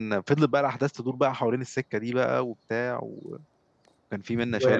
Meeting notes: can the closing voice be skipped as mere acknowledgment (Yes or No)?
No